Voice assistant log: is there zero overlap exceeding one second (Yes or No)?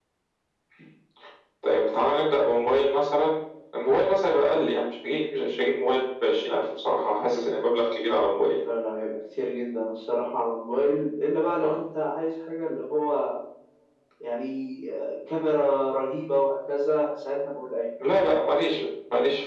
Yes